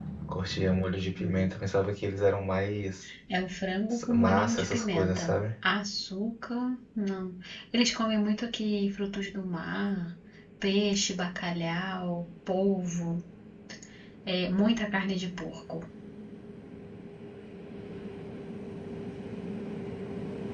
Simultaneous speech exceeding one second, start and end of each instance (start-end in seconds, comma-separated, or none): 4.1-5.4